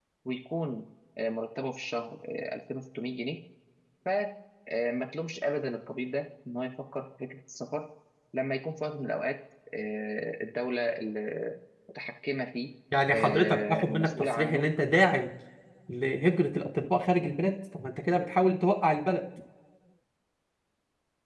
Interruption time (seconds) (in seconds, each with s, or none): 13.1 s